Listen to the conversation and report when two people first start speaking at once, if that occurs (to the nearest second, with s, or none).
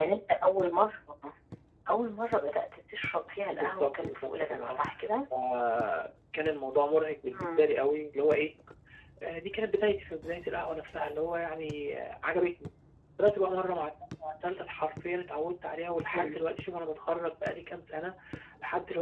4 s